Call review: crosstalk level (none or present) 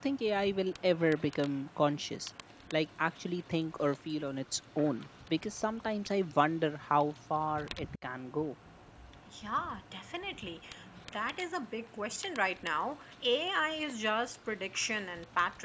none